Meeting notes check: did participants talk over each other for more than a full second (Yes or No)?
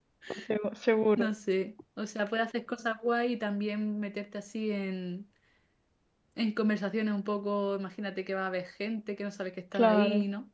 No